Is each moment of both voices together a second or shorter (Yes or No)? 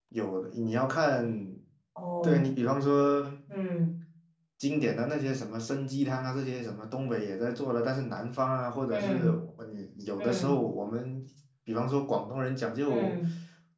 Yes